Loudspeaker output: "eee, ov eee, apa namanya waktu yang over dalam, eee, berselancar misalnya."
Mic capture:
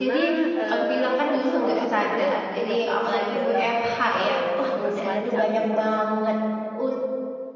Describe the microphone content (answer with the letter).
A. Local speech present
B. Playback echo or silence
A